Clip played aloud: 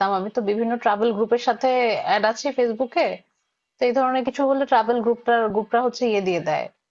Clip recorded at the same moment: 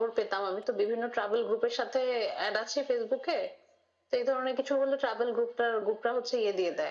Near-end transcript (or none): none